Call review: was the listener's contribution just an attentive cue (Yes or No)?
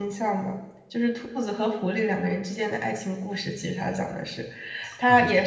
Yes